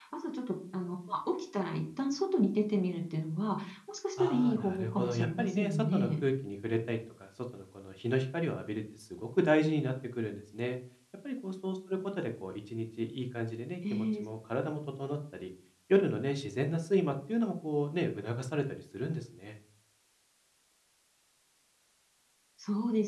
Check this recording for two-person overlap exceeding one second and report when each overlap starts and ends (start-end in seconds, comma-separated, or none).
4.2-6.1